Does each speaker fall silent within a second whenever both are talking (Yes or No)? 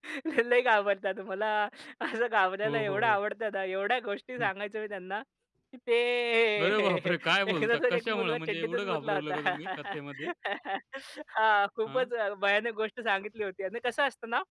No